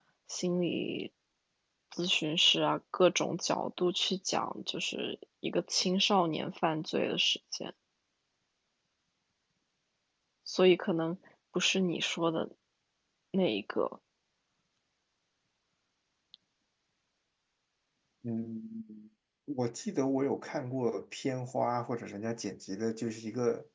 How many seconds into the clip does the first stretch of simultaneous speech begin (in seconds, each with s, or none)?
none